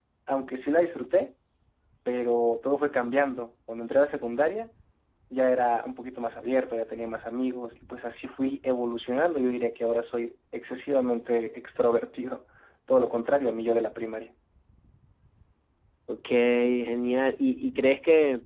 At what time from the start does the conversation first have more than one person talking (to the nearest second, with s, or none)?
none